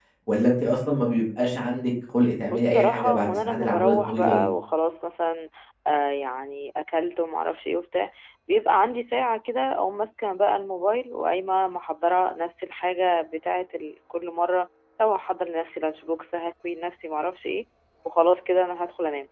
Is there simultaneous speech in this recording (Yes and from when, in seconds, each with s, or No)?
Yes, from 2.5 s